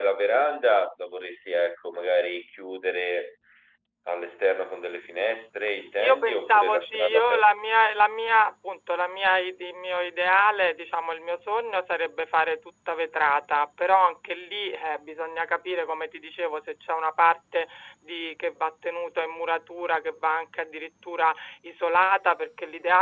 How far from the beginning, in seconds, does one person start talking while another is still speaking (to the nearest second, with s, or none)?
6 s